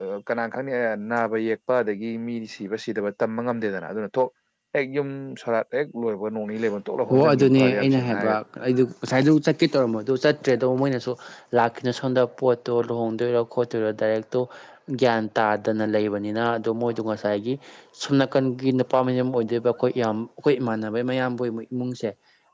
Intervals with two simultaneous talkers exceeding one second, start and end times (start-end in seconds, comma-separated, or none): 7.1-8.4